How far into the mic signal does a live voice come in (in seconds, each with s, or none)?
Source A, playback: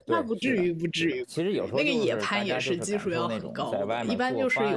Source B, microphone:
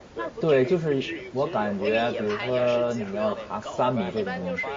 0.4 s